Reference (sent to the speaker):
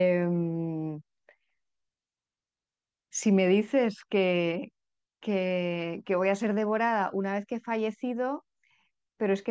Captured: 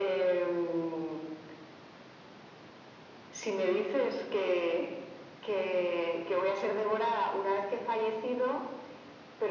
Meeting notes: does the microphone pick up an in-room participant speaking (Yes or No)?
No